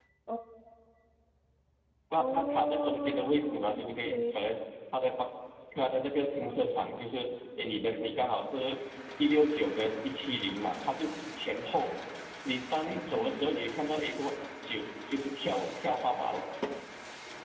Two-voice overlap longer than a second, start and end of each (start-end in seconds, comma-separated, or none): 2.2-4.3